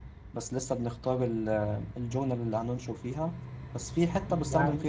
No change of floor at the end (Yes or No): Yes